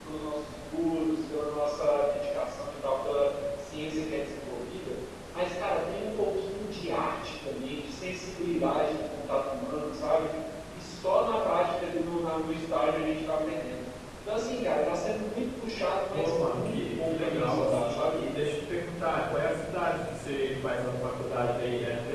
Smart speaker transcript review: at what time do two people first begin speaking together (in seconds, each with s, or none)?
16.1 s